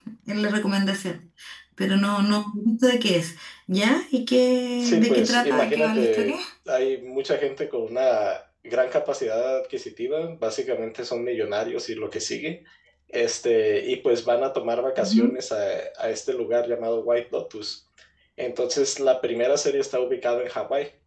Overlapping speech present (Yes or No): Yes